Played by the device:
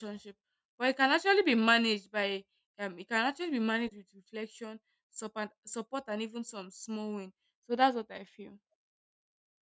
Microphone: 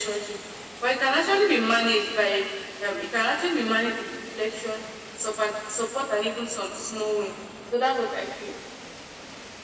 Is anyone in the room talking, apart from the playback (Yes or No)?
No